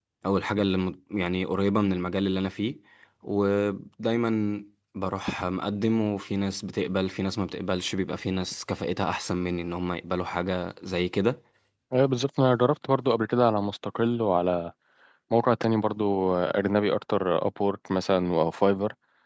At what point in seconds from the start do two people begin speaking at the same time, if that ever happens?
none

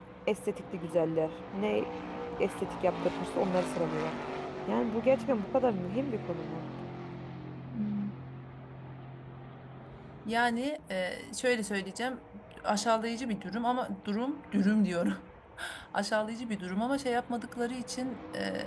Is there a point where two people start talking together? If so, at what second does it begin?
none

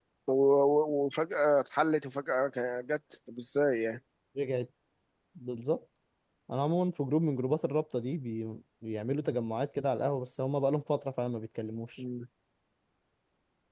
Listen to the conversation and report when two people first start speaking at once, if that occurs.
none

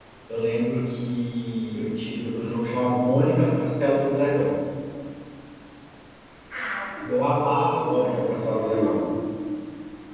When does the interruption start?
7 s

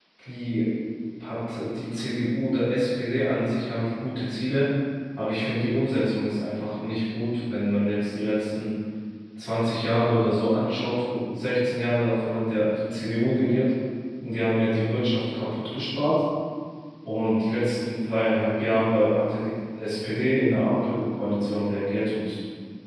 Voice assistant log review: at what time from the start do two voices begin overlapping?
none

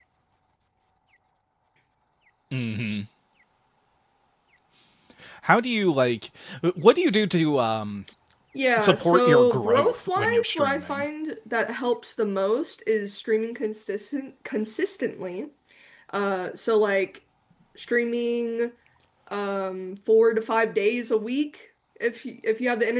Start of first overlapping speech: 9 s

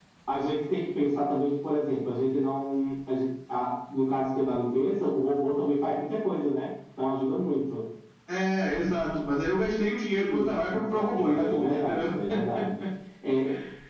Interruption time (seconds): 10 s

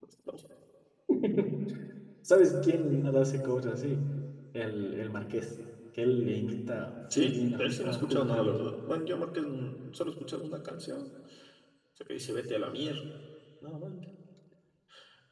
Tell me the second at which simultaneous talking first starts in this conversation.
7 s

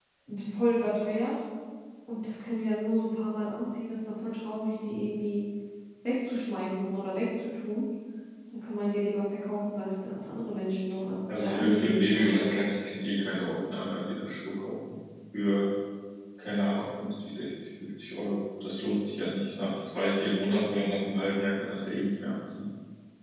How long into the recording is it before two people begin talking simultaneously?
11 s

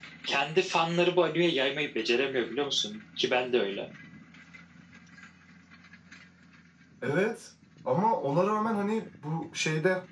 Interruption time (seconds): none

